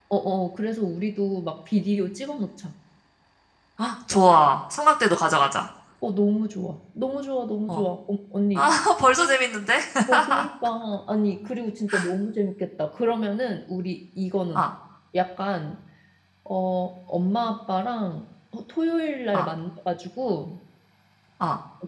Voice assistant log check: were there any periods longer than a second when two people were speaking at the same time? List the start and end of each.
none

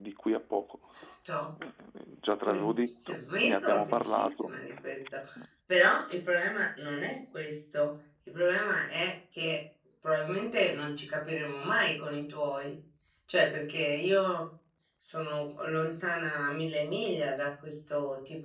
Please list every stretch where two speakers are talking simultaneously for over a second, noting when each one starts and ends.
2.4-4.5

